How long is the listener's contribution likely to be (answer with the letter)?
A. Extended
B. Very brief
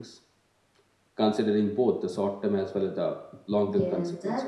A